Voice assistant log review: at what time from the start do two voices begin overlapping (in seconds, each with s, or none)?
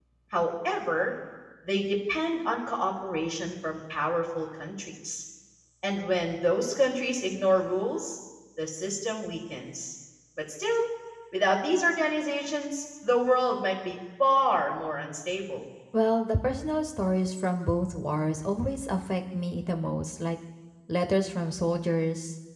none